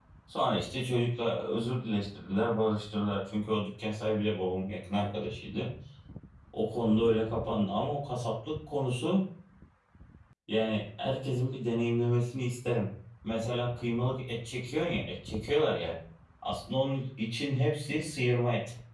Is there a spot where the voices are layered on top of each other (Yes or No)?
No